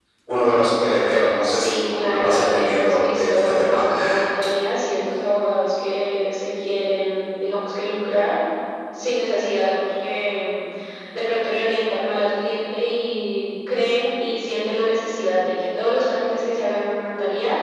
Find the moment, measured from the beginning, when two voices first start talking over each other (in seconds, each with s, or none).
1.4 s